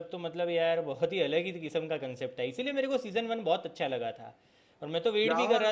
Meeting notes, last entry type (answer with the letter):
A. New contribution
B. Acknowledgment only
B